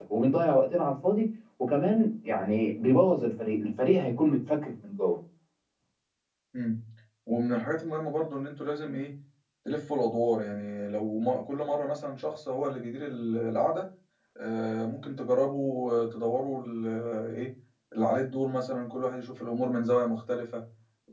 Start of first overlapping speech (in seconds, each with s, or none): none